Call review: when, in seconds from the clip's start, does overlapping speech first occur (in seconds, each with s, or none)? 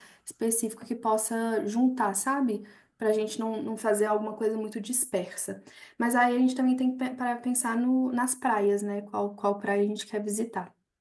none